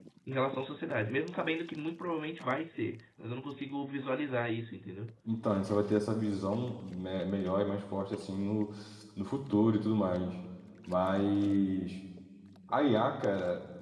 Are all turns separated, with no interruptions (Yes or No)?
Yes